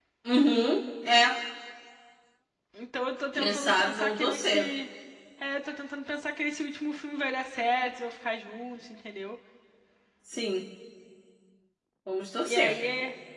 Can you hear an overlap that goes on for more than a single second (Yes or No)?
Yes